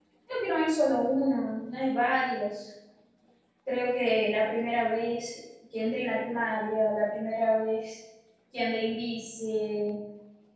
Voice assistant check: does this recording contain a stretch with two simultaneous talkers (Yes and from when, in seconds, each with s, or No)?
No